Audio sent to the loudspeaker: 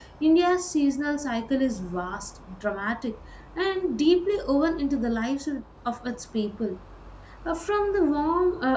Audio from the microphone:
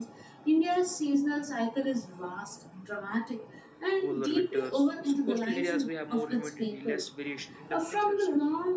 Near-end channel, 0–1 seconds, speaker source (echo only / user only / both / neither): echo only